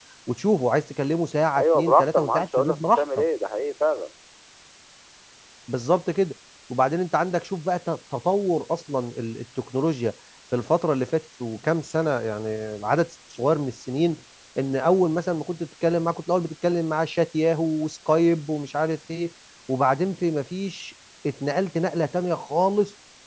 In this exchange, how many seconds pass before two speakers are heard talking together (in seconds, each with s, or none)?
1.6 s